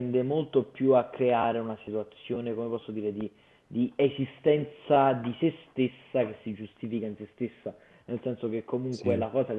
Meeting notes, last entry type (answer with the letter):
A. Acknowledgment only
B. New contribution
A